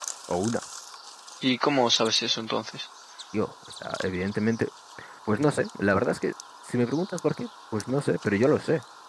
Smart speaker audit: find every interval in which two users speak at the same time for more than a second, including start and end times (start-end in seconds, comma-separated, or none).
none